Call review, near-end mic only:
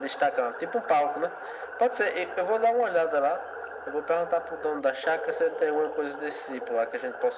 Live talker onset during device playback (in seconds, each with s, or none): none